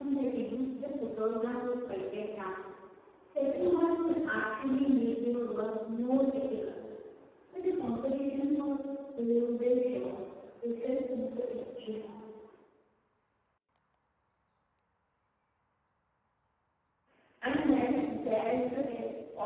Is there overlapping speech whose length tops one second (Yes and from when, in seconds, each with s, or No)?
No